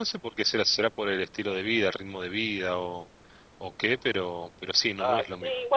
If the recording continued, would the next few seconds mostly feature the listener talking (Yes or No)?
Yes